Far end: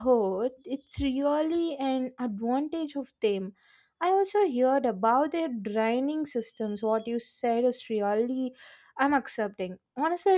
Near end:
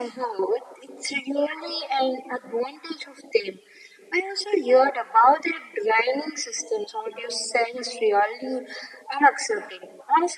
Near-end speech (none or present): none